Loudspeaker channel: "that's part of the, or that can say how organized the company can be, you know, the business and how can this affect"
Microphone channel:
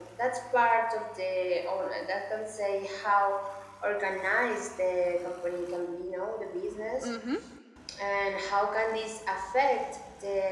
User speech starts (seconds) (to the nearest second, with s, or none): 7 s